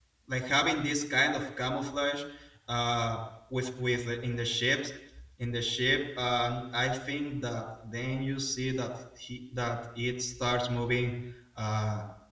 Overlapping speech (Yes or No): No